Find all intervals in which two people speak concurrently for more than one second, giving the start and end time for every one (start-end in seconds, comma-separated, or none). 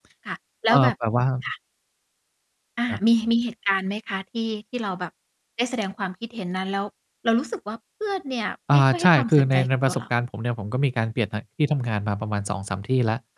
8.7-10.0